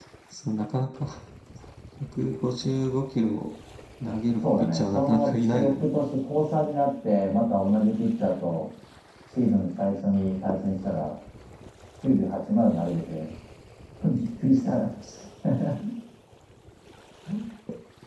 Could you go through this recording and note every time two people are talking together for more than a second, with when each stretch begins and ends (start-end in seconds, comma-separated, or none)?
4.4-5.9